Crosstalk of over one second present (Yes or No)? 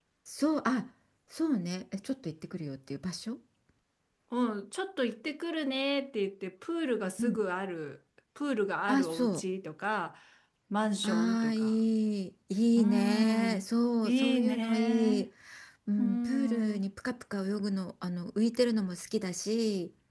Yes